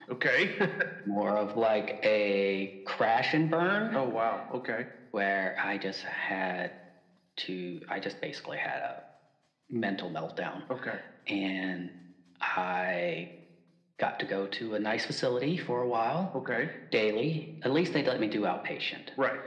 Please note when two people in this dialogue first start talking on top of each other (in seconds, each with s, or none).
none